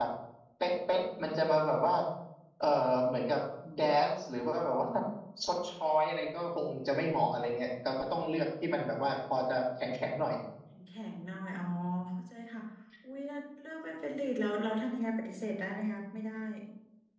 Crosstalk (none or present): none